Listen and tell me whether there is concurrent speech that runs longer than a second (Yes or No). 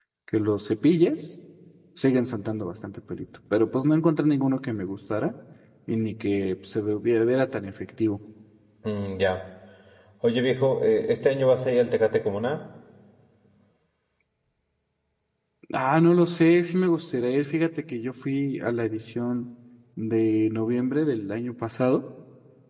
No